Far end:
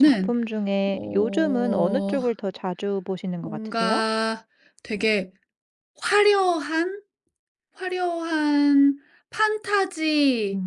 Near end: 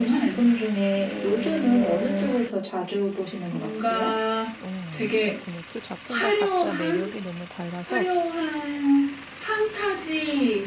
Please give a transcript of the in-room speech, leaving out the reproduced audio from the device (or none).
우와 그렇군요. 두 작품 다 각자 매력이 너무 달라서